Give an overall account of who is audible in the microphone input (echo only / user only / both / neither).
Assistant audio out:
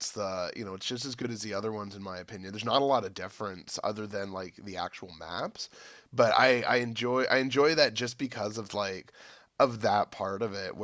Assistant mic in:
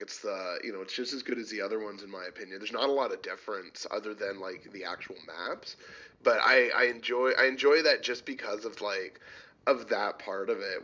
echo only